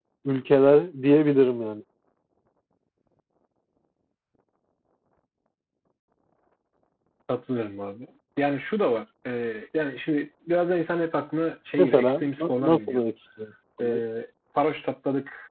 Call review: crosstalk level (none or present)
present